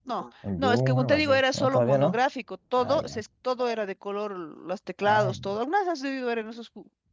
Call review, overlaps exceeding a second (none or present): present